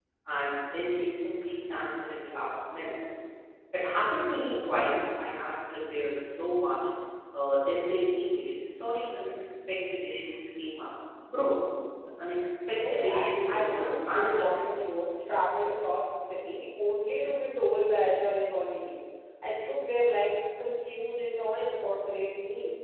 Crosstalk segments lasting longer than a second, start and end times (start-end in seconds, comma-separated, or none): 12.7-14.6